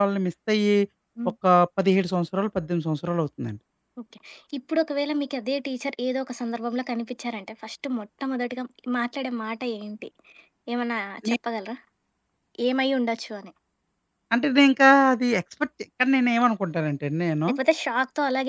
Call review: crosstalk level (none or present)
none